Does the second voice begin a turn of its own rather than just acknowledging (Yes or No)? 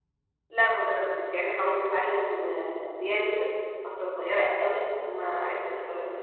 No